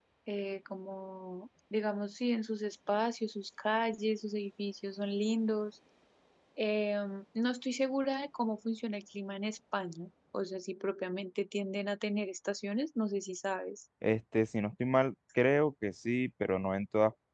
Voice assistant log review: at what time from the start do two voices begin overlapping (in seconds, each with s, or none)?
none